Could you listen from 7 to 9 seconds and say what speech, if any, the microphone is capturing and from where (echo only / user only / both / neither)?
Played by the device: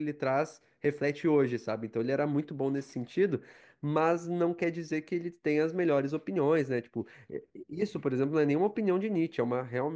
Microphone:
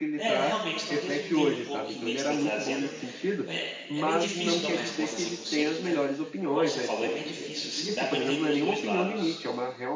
both